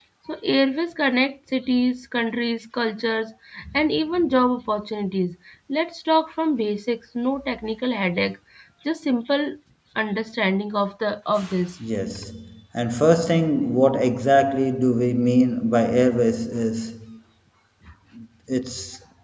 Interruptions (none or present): none